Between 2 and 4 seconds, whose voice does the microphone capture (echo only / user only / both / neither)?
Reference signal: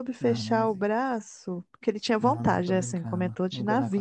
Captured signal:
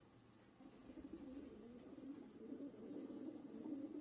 neither